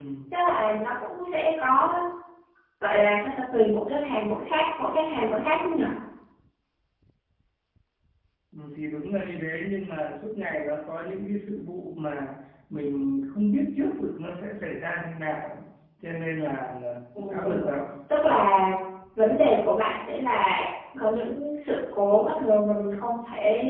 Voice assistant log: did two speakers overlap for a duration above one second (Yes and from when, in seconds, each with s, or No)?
No